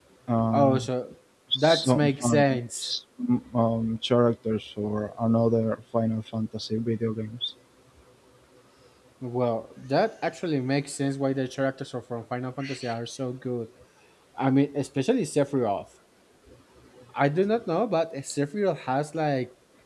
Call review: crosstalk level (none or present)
present